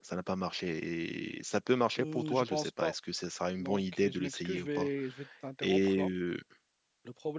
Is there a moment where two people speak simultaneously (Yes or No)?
Yes